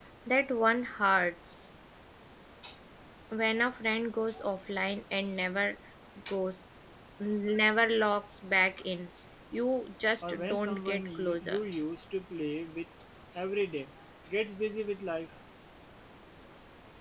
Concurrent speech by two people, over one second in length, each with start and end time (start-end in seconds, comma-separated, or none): 10.2-11.6